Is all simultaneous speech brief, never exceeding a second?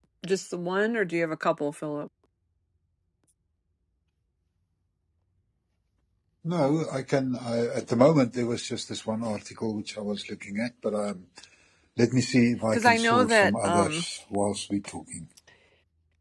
No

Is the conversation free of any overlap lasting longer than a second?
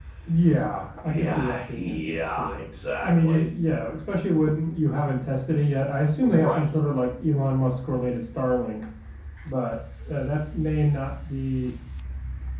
No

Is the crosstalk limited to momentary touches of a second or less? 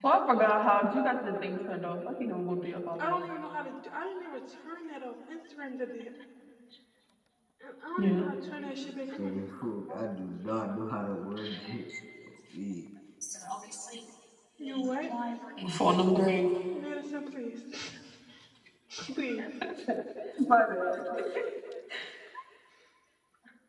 Yes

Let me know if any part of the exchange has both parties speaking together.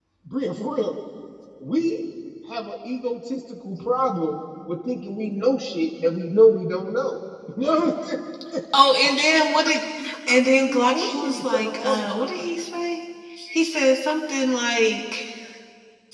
Yes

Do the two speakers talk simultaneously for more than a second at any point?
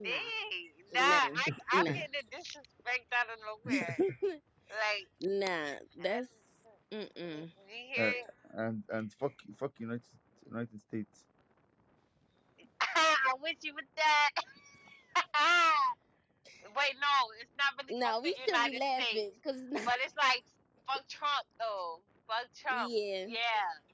Yes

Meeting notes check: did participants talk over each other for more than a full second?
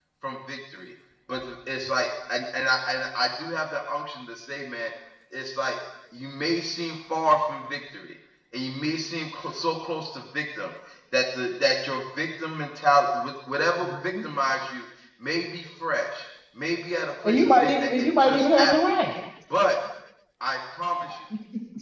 Yes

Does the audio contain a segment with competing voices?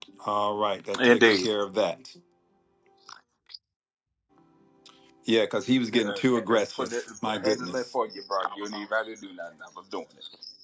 Yes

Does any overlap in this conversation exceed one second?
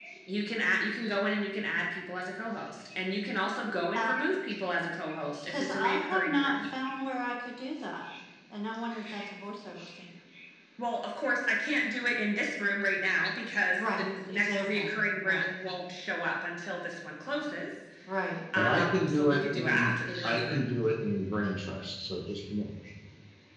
Yes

